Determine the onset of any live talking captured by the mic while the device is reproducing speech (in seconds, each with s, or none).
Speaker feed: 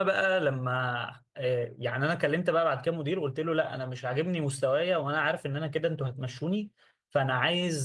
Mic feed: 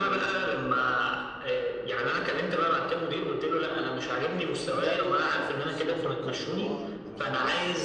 4.7 s